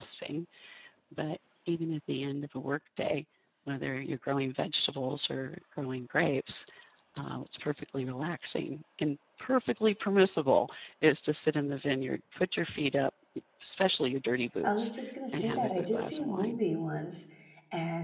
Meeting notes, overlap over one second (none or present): present